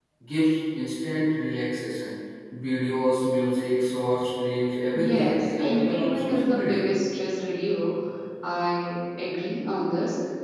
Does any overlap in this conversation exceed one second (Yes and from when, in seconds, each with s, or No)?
Yes, from 4.9 s